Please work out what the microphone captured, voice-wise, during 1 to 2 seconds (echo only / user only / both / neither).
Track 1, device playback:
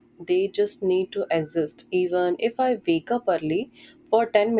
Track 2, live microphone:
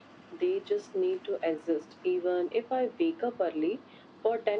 echo only